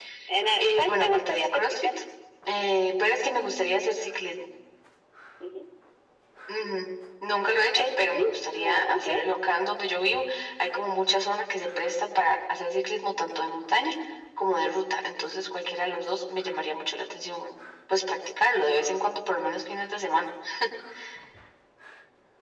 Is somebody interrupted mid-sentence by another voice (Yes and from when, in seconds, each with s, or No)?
Yes, from 0.6 s